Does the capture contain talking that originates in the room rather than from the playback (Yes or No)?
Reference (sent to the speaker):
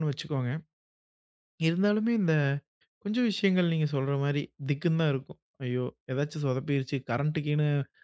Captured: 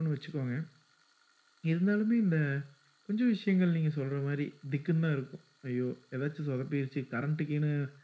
No